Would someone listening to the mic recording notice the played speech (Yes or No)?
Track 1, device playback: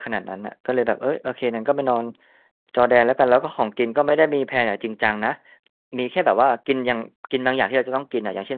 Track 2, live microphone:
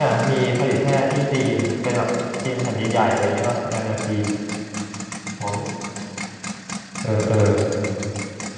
No